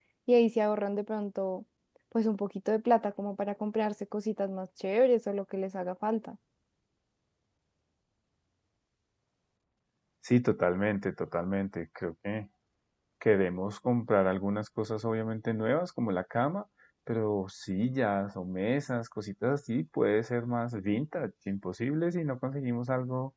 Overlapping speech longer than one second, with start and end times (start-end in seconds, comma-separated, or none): none